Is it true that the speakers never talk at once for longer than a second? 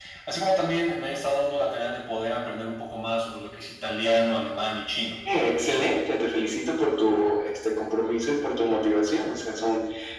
Yes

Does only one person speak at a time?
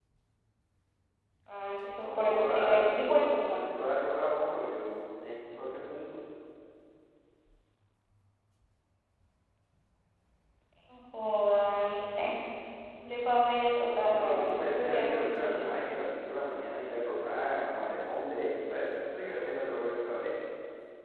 No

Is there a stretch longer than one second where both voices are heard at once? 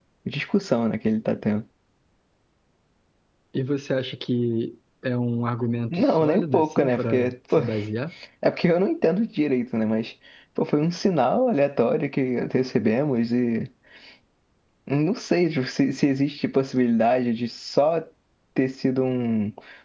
Yes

